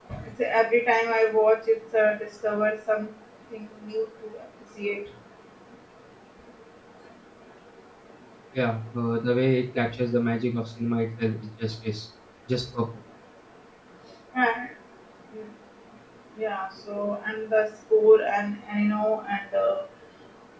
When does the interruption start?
none

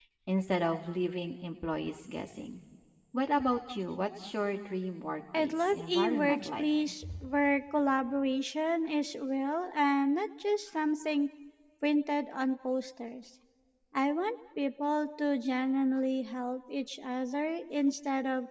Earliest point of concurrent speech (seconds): 5.3 s

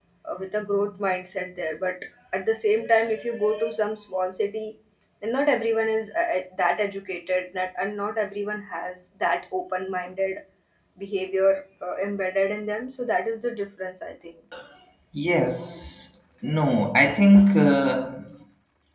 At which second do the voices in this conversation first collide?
none

